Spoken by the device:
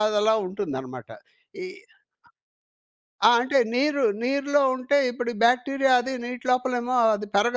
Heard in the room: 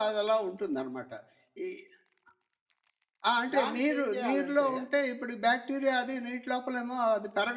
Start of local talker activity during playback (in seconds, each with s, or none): 3.6 s